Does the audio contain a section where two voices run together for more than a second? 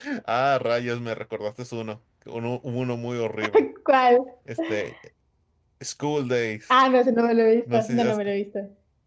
No

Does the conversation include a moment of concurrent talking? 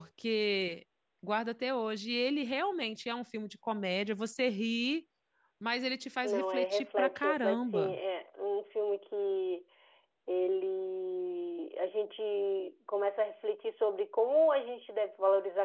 Yes, from 6.2 s

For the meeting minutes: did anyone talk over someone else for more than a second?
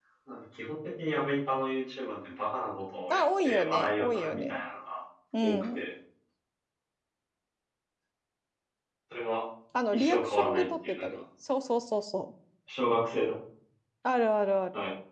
Yes, from 3.1 s

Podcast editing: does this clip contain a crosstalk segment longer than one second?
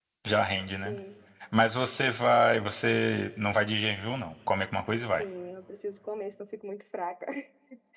No

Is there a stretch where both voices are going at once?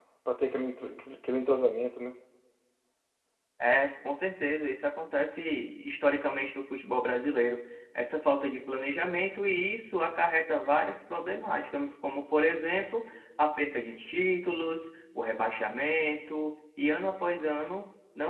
No

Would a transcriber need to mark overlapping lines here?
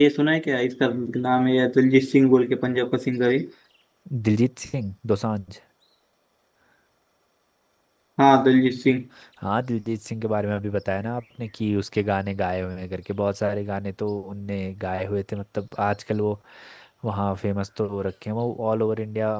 No

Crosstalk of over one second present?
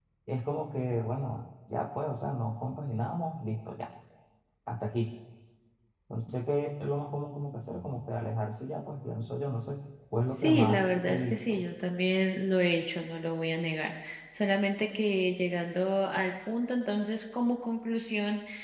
Yes, from 10.3 s

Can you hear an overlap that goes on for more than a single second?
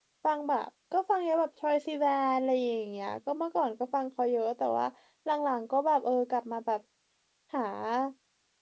No

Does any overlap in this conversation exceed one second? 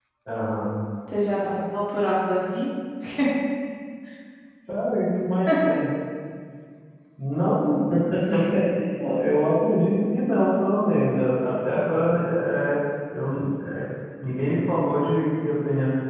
No

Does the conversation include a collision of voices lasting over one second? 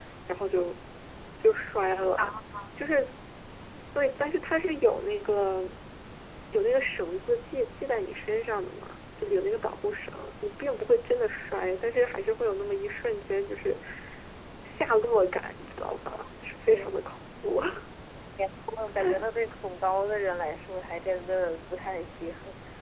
No

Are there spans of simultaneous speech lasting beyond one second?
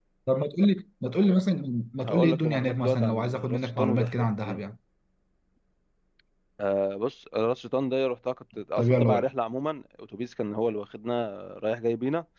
Yes, from 2.0 s

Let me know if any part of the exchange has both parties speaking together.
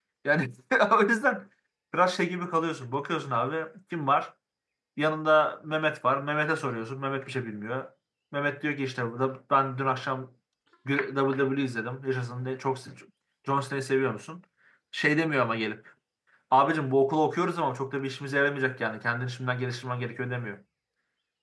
No

